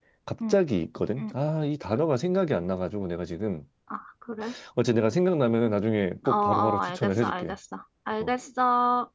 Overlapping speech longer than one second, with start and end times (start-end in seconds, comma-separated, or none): 6.3-7.5